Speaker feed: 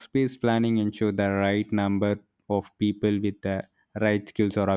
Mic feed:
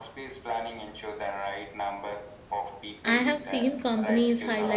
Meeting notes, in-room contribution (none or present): present